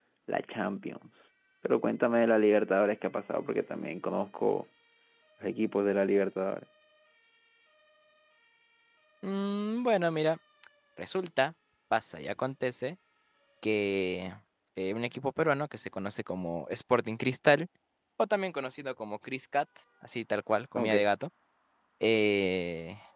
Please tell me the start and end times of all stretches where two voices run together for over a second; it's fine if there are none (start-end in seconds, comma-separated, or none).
none